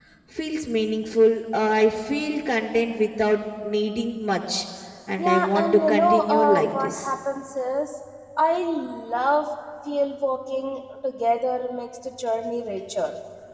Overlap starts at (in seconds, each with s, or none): 5.2 s